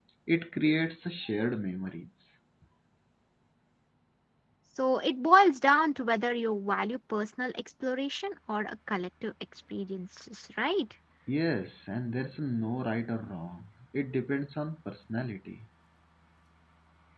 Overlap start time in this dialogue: none

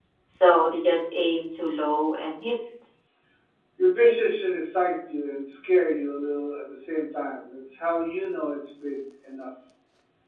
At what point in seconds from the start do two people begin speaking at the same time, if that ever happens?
none

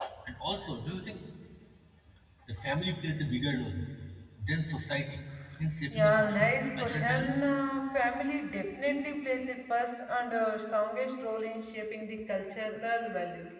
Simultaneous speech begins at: 5.9 s

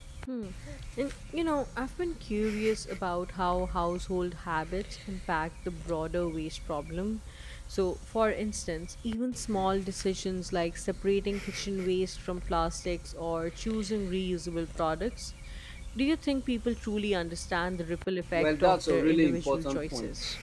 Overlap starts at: 18.3 s

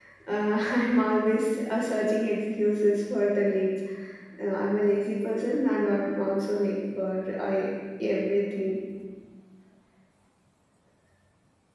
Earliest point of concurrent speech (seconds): none

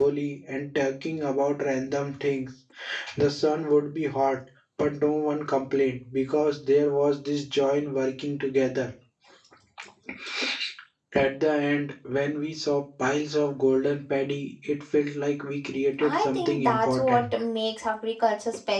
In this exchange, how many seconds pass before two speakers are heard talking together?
16.0 s

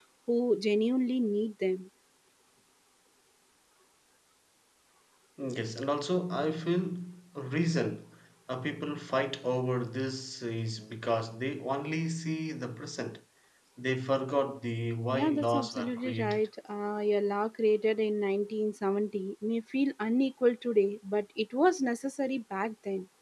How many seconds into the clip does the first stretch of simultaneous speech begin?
15.1 s

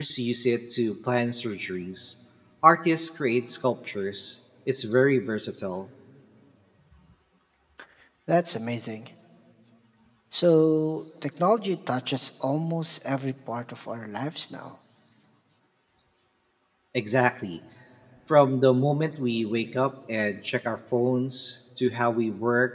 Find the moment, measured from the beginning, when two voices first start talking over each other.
none

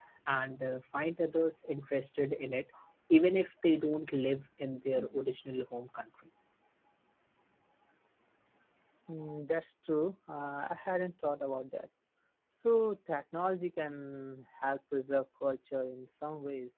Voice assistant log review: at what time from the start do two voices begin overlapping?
none

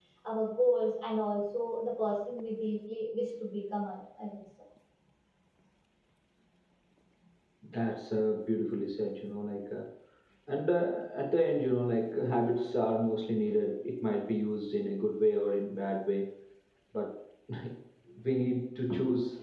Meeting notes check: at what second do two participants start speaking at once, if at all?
none

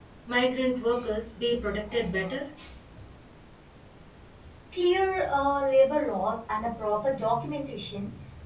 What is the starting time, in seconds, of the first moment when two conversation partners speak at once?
none

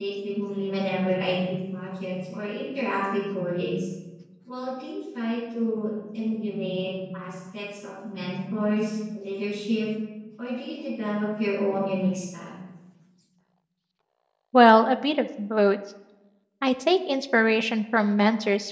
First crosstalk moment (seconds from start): none

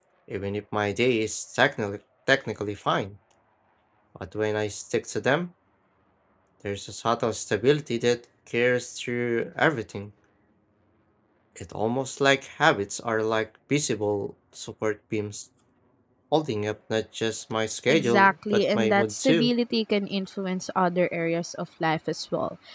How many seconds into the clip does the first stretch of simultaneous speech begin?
17.9 s

